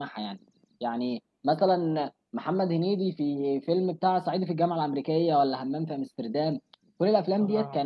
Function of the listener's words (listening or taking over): listening